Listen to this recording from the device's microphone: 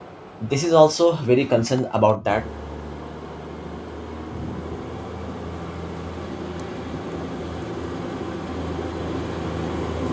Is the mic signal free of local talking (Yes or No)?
No